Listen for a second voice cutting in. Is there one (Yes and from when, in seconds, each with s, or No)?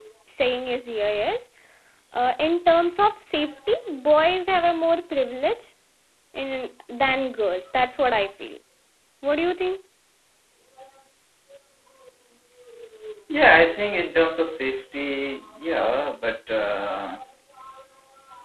No